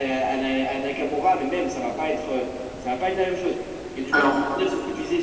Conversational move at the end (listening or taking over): listening